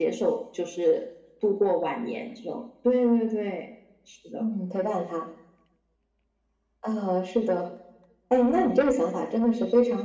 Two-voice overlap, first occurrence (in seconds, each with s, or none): none